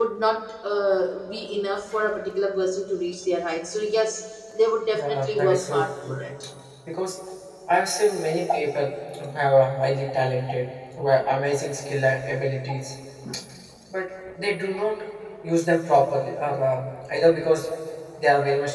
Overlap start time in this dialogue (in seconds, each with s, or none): 4.9 s